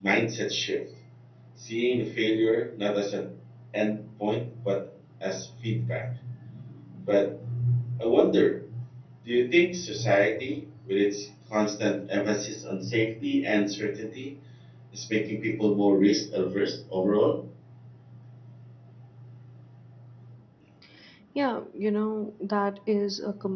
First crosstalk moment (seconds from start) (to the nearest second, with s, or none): none